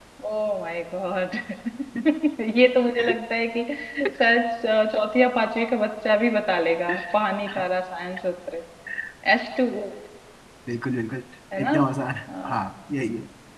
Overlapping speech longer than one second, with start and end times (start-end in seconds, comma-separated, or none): none